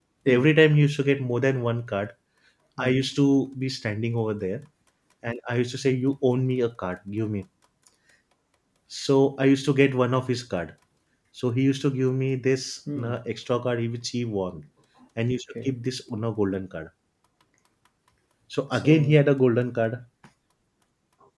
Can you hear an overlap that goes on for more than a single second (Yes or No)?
No